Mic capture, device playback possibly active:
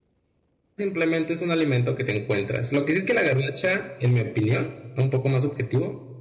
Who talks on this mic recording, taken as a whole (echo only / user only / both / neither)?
user only